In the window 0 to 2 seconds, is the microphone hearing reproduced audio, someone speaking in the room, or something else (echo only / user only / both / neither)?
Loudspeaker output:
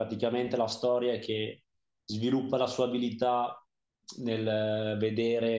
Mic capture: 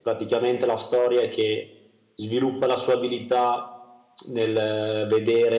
echo only